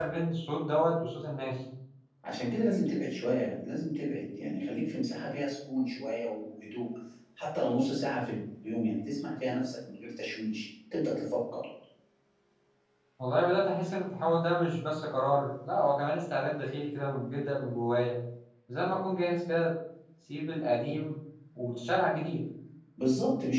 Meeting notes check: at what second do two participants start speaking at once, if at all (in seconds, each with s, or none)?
none